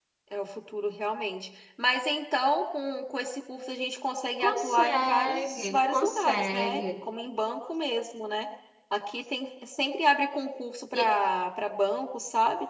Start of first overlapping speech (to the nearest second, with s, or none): 4 s